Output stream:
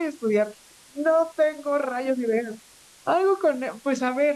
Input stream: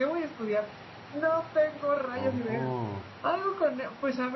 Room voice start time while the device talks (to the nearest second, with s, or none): 2 s